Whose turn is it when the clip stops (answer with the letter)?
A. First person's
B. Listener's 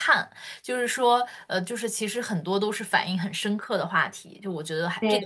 B